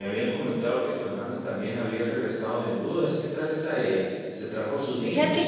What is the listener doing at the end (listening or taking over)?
taking over